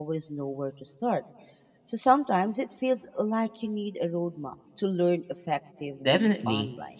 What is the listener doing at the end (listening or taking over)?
taking over